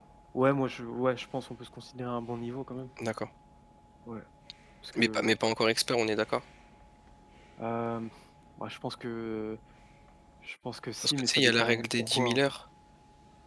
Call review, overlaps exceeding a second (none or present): present